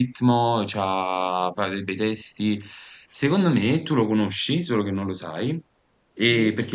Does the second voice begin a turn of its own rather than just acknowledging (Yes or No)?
No